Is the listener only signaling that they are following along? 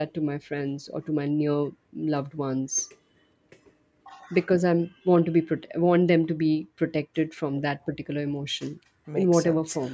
No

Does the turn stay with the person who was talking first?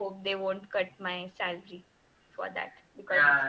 No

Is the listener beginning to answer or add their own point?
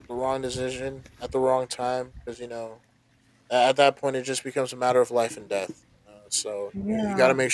No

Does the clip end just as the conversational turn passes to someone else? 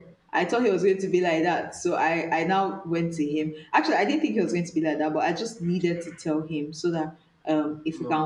No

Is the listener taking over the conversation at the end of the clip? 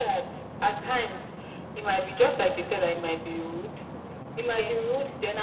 No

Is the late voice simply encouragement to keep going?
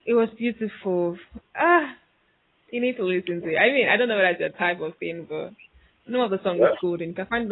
Yes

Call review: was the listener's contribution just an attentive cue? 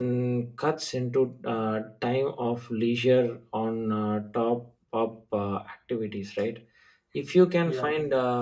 Yes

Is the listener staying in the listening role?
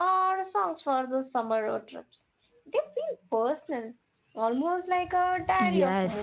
No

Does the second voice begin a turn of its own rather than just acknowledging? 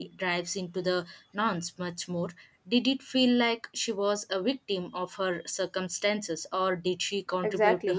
Yes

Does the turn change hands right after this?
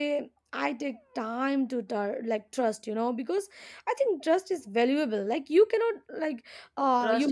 No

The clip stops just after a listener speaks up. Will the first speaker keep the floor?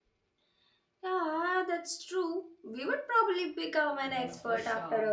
No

